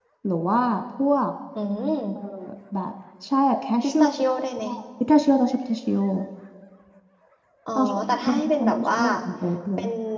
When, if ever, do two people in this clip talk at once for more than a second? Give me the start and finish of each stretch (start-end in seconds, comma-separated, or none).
7.8-9.0